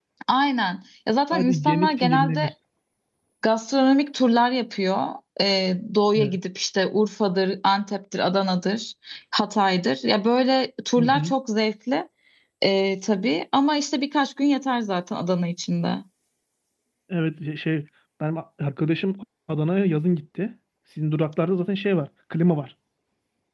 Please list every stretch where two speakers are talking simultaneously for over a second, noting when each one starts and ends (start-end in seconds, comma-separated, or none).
1.3-2.5